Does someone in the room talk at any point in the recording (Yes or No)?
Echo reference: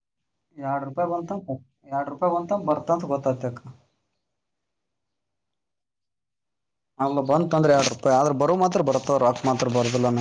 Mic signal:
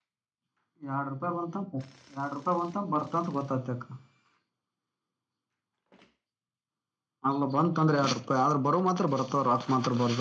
No